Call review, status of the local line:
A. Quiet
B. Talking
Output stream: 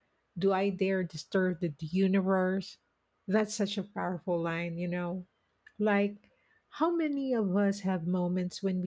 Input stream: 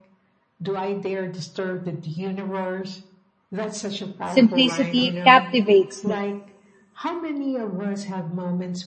B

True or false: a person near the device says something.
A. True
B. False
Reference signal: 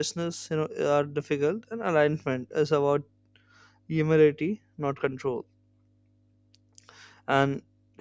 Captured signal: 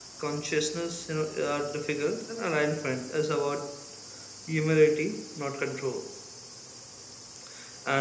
B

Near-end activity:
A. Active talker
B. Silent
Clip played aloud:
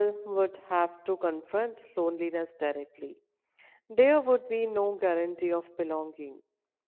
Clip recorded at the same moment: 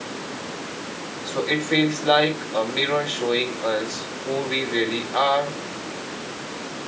A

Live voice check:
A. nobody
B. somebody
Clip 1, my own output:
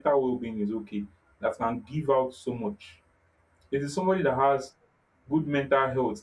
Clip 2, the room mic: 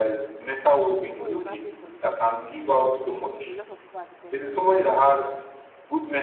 B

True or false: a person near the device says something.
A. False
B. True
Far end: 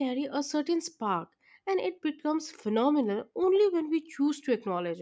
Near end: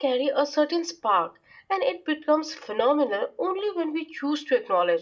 A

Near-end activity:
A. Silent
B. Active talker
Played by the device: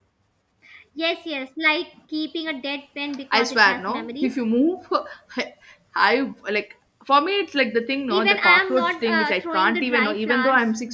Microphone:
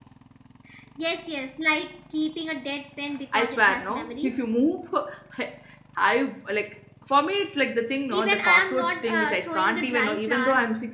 A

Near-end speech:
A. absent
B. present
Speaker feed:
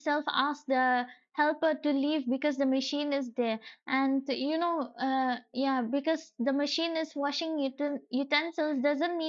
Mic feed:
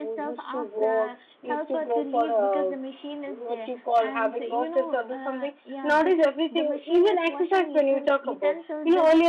B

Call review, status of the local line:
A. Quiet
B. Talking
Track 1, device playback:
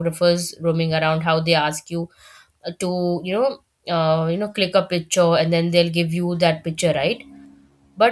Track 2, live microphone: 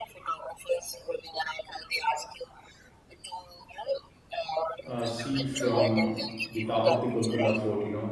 B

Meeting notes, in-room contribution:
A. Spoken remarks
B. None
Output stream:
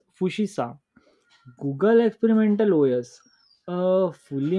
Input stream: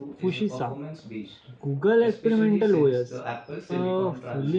A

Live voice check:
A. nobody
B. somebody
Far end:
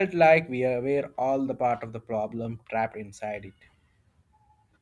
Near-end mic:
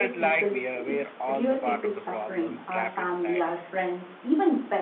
B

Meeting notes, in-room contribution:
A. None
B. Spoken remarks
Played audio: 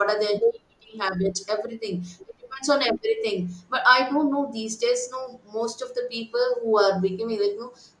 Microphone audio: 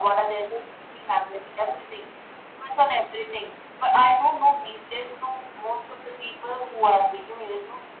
A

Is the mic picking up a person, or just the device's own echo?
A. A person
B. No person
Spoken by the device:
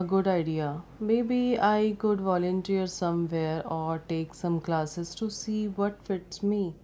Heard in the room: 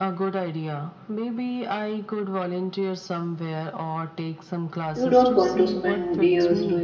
A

